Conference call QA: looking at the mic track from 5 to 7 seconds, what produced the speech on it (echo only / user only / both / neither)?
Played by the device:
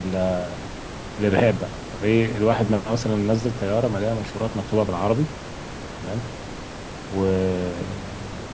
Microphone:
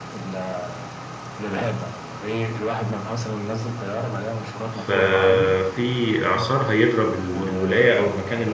both